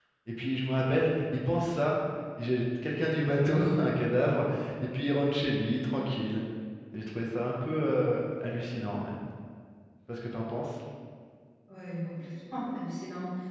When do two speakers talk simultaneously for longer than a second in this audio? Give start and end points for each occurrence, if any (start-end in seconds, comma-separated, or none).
none